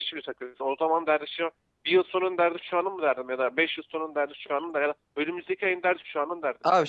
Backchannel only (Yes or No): No